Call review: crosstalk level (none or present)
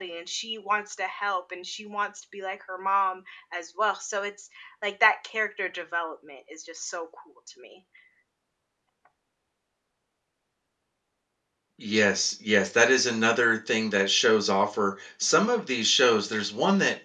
none